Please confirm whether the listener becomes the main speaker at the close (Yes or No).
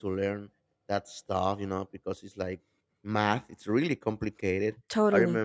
No